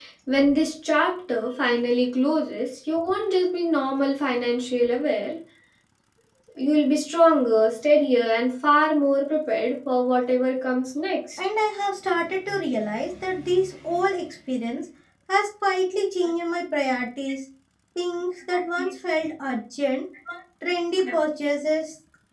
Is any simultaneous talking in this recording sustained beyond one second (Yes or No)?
No